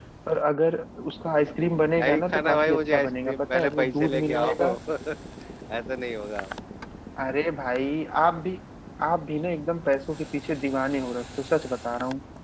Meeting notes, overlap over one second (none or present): present